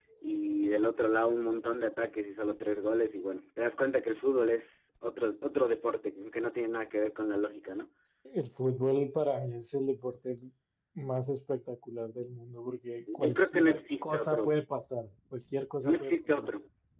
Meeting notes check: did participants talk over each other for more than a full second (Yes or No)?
Yes